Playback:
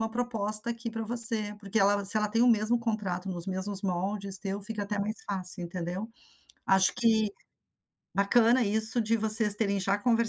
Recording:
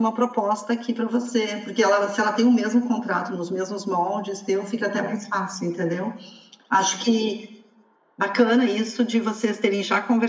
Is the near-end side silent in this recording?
Yes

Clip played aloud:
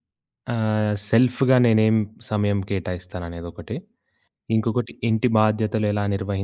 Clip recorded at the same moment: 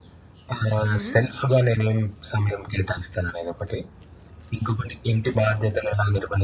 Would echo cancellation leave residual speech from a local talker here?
Yes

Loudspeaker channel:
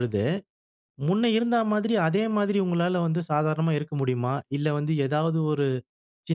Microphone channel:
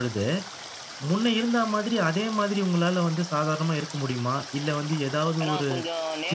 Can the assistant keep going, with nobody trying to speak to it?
No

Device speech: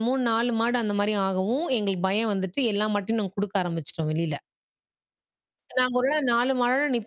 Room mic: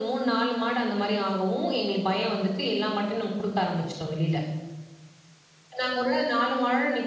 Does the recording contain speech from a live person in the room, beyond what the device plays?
No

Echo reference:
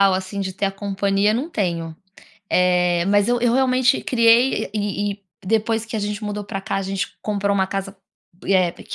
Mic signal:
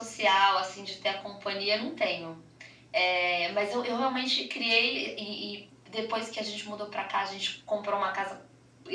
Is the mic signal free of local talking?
Yes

